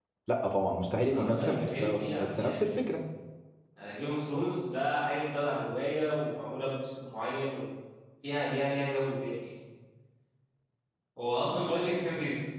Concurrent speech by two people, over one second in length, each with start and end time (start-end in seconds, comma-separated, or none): 1.1-2.8